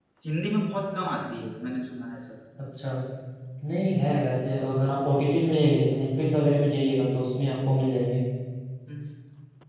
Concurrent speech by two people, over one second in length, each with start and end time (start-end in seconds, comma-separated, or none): none